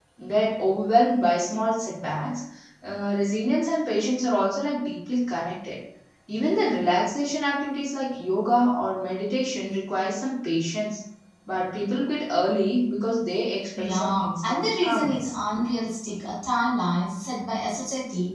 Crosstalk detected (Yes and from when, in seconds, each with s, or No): Yes, from 13.8 s